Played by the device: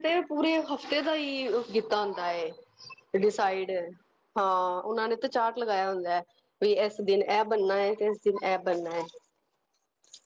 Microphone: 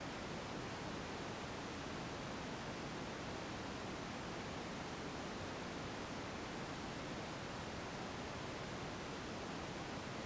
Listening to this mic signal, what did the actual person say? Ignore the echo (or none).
none